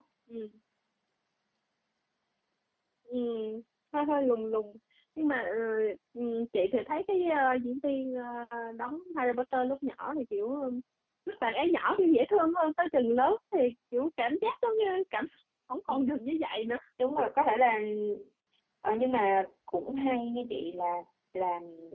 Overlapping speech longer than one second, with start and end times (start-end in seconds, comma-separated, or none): none